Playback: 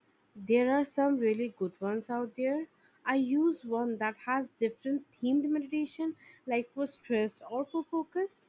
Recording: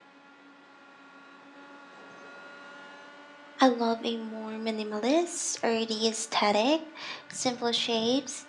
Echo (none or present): none